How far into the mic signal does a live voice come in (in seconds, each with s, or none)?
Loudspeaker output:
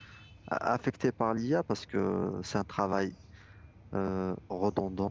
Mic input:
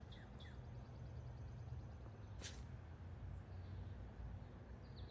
none